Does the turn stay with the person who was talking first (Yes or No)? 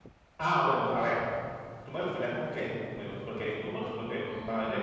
Yes